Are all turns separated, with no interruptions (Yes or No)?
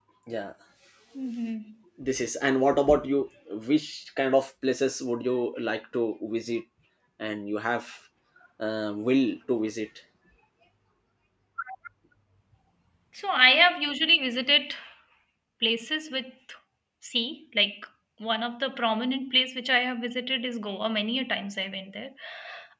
Yes